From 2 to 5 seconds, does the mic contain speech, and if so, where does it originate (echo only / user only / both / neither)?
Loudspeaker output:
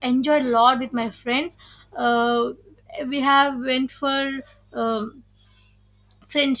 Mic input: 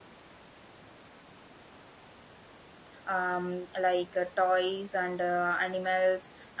user only